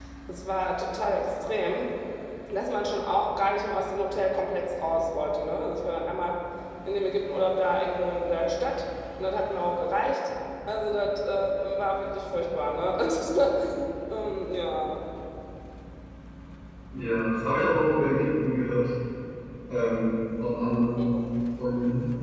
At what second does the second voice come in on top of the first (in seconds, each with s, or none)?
none